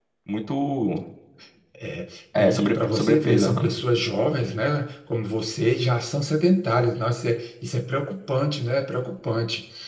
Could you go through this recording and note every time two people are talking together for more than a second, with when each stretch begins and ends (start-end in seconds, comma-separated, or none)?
2.4-3.7